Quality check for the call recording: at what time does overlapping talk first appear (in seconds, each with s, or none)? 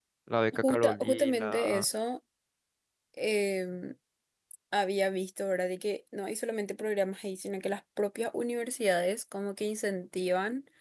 0.6 s